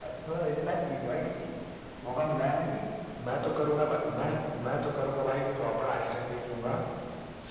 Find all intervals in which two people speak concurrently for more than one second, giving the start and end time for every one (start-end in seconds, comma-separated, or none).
none